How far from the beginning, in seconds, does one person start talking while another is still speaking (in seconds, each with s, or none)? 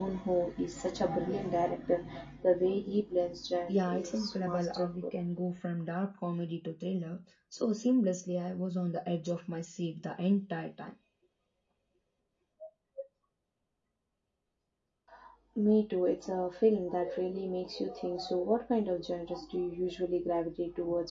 3.7 s